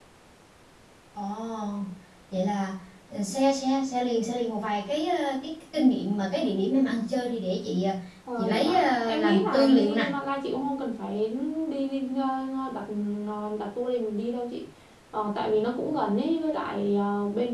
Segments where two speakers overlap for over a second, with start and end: 8.4-10.0

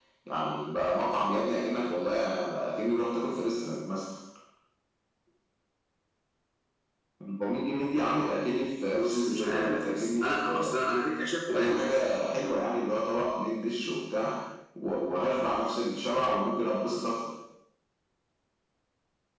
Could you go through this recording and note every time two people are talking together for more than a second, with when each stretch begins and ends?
8.9-10.8

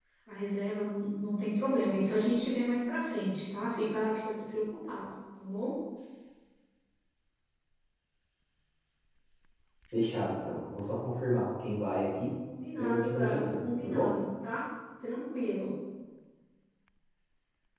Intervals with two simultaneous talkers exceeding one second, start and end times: 12.8-14.1

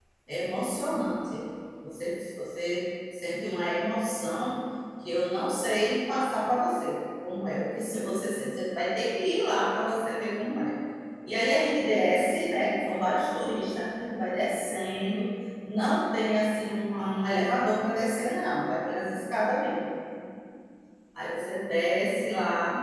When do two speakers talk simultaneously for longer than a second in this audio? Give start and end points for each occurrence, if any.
none

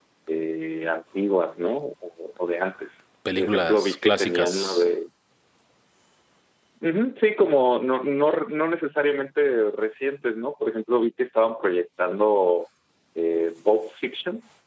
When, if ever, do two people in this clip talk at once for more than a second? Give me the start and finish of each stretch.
3.4-4.8

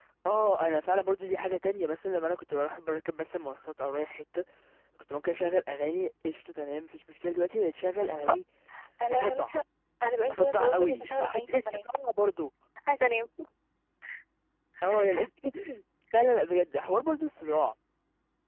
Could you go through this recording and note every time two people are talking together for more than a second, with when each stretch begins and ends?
10.2-11.7

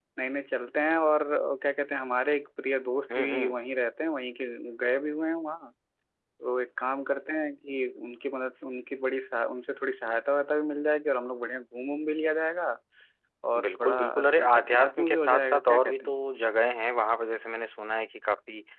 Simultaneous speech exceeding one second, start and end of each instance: 13.6-16.2

